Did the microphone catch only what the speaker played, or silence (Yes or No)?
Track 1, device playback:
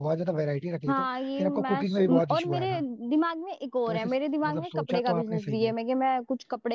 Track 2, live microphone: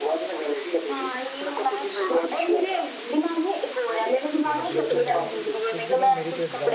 No